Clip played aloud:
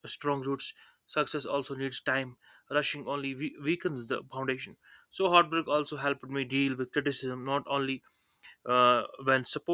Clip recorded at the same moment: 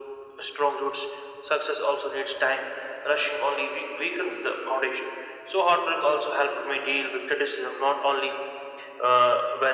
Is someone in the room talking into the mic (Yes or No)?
No